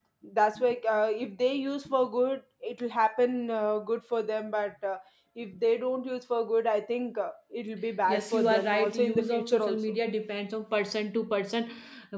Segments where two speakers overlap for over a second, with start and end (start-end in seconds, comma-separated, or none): 8.1-9.8